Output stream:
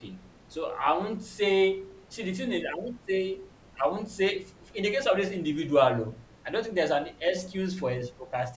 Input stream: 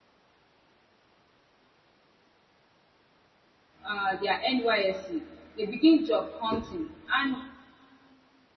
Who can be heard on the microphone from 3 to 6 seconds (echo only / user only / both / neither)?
user only